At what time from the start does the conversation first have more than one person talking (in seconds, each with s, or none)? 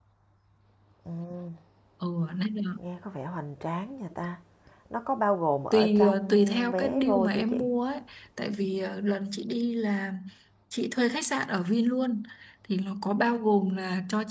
5.7 s